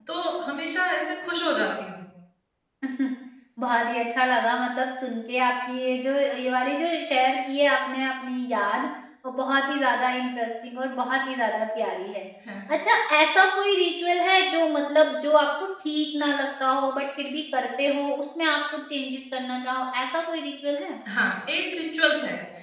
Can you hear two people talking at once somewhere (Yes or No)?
No